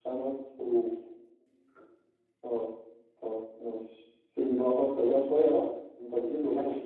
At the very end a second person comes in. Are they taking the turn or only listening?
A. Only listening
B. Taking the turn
B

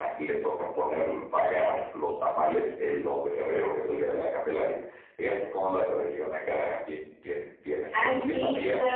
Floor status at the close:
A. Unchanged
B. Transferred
B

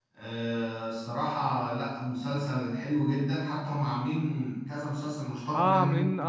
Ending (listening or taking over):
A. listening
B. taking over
B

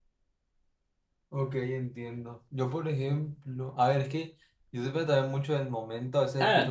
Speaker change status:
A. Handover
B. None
A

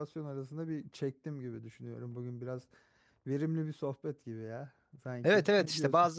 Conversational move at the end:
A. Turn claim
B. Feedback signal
A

